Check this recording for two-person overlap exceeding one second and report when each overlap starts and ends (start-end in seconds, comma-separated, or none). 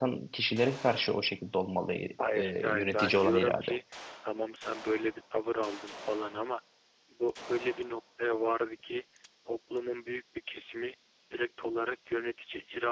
2.4-3.7